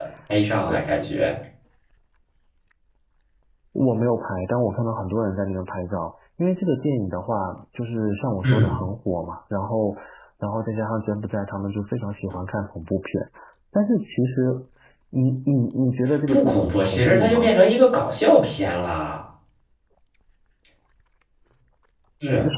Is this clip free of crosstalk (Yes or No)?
No